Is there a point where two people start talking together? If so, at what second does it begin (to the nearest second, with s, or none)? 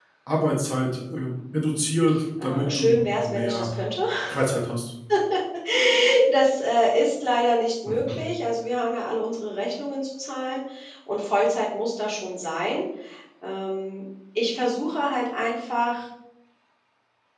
2 s